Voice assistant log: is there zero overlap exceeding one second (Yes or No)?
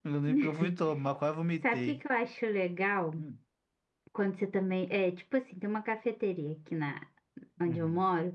Yes